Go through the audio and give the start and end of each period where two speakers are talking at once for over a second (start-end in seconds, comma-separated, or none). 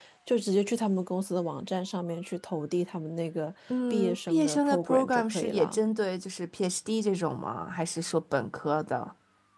3.9-5.8